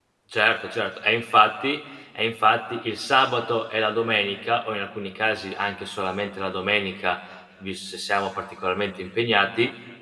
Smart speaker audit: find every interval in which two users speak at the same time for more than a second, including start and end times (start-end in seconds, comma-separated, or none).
none